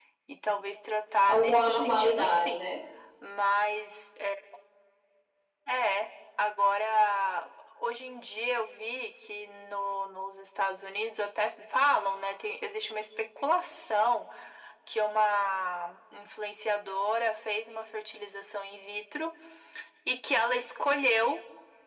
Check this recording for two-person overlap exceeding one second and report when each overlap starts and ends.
1.3-2.7

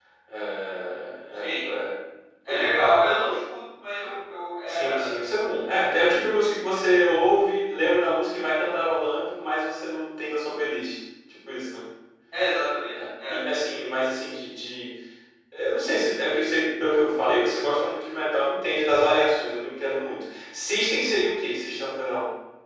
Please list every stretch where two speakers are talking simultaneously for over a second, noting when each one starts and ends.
none

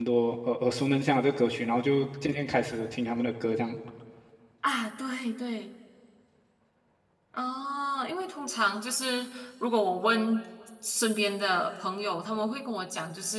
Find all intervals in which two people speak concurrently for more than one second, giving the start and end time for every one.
none

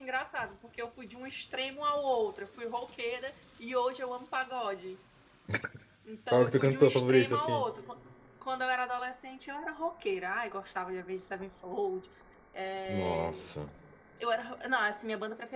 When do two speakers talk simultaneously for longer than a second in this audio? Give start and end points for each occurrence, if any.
6.3-7.6

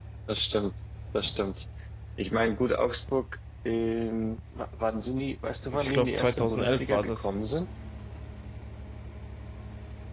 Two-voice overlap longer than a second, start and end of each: 5.7-7.3

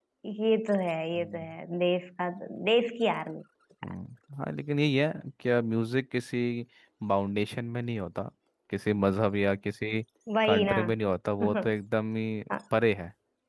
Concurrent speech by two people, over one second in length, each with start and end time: none

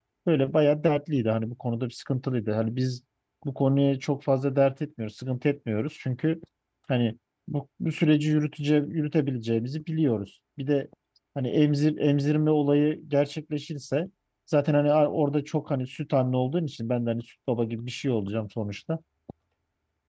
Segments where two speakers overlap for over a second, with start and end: none

